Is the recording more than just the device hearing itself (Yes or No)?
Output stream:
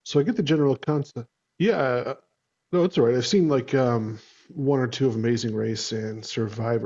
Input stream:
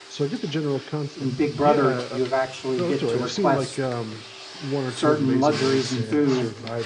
Yes